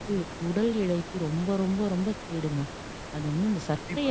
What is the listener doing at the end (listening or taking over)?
listening